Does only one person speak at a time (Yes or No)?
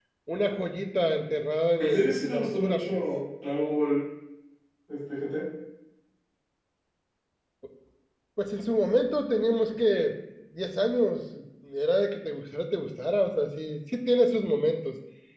No